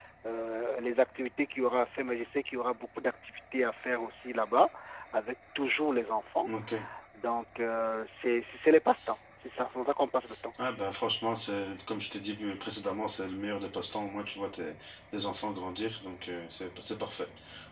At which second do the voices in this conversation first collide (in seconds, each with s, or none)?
none